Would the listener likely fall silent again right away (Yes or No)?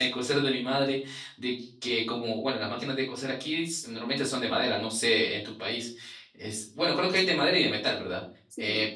Yes